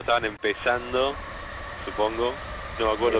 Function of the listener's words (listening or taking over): listening